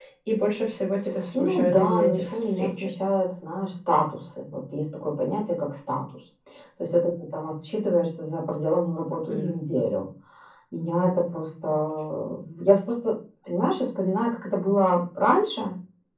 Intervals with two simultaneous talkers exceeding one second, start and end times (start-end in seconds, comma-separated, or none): 1.3-2.9